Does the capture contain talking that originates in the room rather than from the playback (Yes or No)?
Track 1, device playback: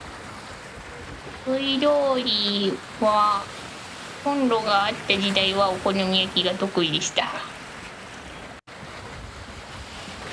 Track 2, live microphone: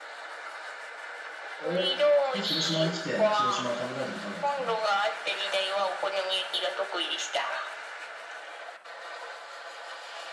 Yes